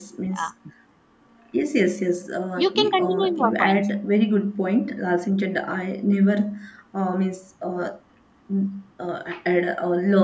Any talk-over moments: Yes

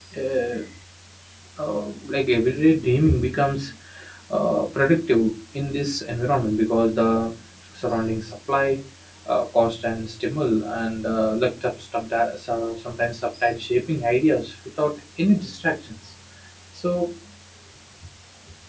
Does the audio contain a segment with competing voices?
No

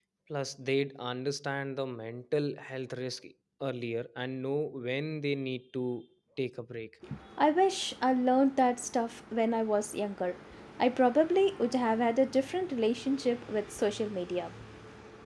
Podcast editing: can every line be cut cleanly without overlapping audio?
Yes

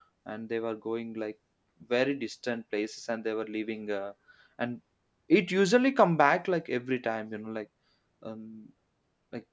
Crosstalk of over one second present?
No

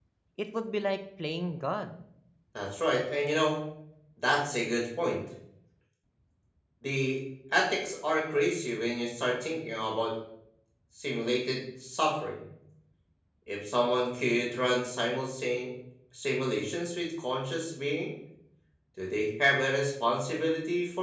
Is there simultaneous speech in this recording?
No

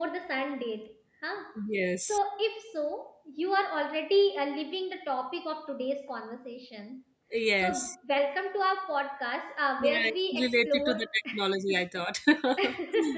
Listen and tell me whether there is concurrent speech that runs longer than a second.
Yes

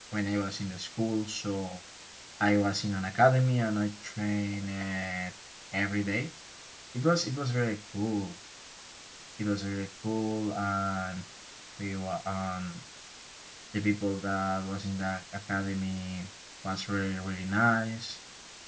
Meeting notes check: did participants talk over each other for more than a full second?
No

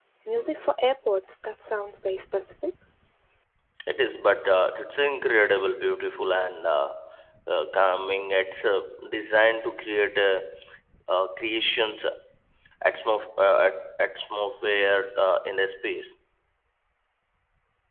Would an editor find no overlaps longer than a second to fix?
Yes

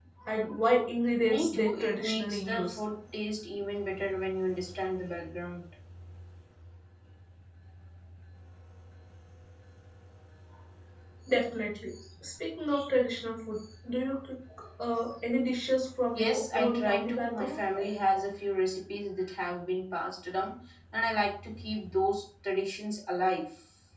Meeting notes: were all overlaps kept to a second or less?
No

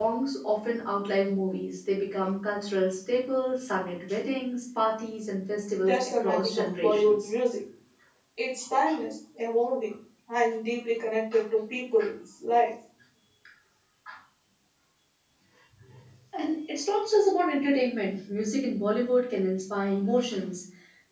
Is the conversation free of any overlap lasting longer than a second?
No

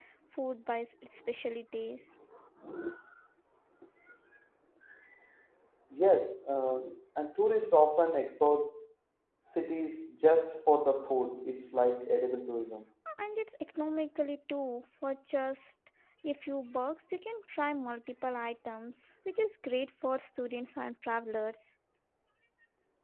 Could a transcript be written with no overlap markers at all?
Yes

